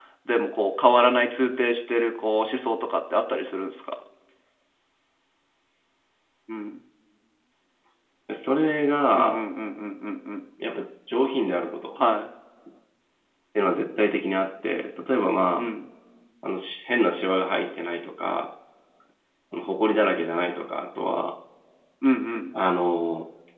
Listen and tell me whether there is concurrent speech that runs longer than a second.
No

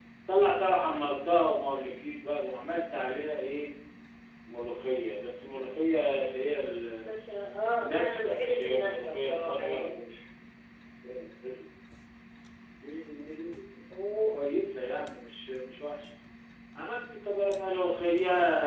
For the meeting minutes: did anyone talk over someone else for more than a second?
Yes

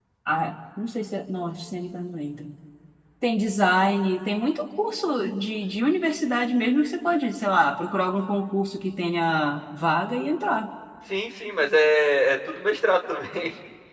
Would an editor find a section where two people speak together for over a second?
No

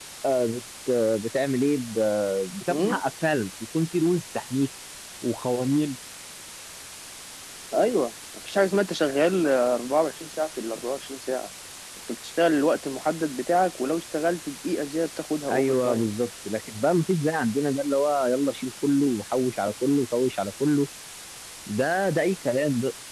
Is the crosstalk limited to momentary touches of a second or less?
Yes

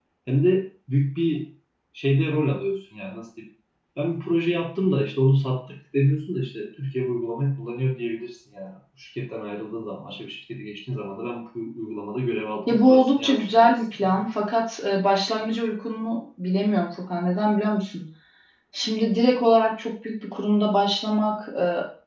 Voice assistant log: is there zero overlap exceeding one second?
No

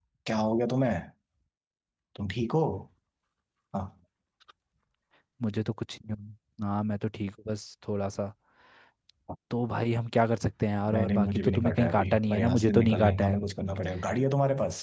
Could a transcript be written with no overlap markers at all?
No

